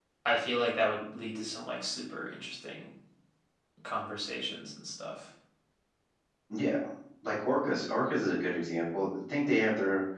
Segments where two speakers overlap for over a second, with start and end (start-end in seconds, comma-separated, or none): none